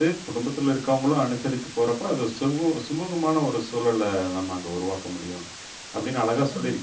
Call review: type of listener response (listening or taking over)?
listening